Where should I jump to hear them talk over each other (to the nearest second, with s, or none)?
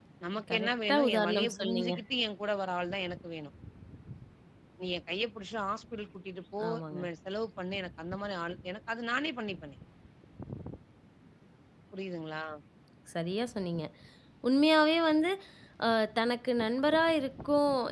1 s